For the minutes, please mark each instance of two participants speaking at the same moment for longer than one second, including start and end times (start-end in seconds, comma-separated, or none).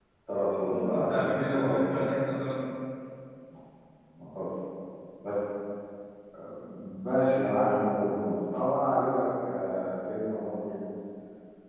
0.7-2.0